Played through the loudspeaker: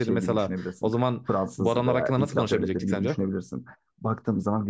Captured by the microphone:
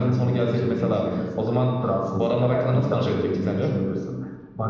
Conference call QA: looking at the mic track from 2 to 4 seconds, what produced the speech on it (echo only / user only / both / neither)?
echo only